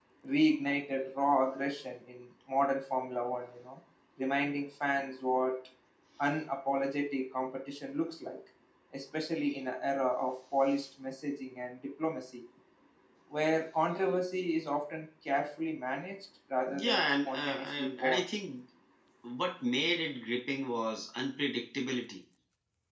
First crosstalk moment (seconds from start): 16.7 s

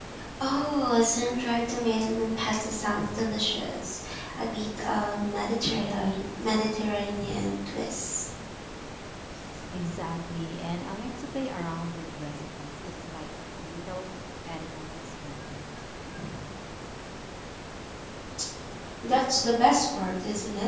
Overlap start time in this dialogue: none

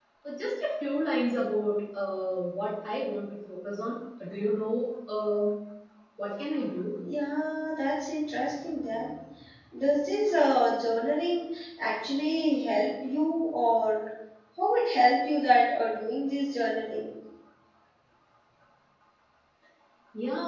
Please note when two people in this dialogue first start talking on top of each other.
none

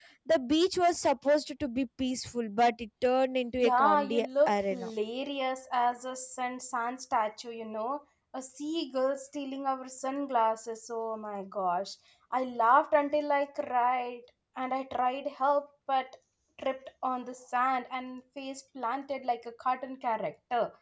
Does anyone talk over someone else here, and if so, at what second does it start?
3.6 s

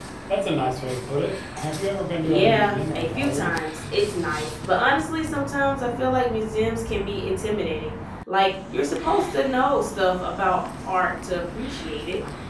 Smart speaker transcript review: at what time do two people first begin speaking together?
2.2 s

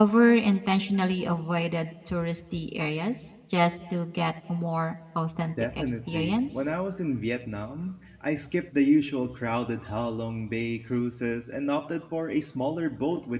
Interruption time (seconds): 5.6 s

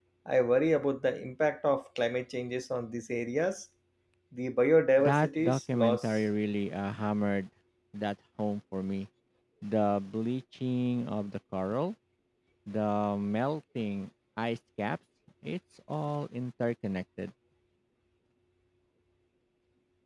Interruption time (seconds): 5.0 s

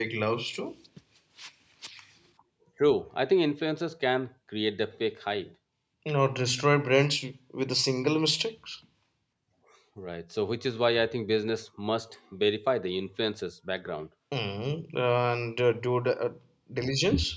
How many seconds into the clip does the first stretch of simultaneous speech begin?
none

